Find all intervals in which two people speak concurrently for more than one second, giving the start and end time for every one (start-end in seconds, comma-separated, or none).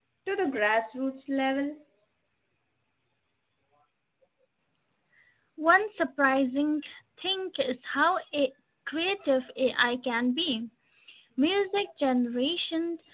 none